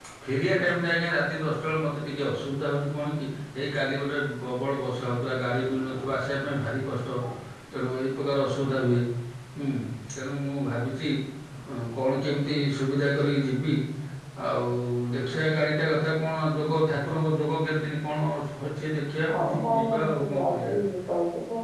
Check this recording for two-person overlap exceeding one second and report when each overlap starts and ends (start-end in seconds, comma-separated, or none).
19.3-20.8